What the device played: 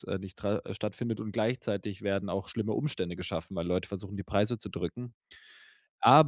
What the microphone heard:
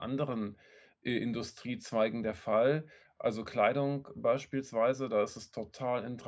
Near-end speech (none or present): present